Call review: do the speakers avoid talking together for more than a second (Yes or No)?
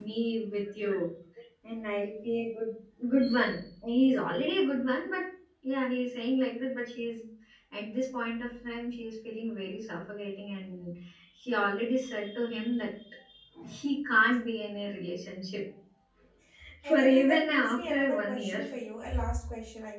No